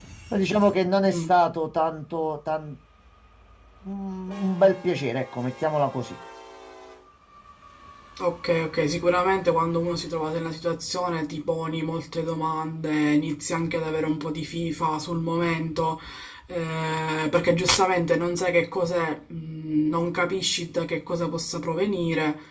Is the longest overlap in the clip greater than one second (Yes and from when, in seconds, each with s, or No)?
No